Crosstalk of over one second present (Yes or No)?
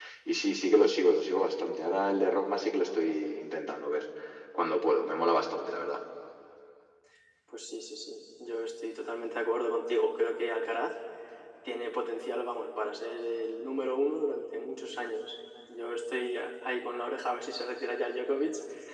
No